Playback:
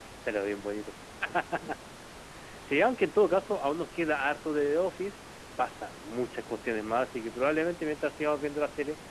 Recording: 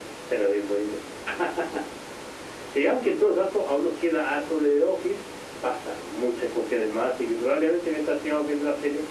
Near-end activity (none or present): none